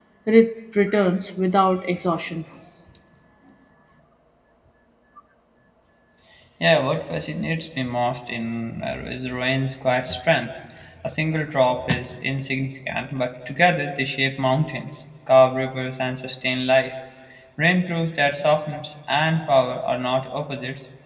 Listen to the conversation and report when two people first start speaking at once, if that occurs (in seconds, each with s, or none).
none